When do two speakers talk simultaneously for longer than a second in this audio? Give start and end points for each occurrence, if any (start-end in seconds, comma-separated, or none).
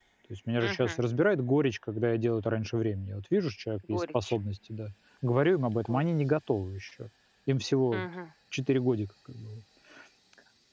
none